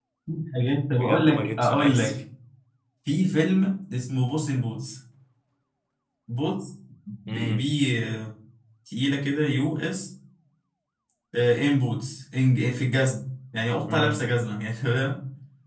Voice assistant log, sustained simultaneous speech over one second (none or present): present